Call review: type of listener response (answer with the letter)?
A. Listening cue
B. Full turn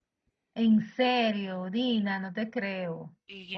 B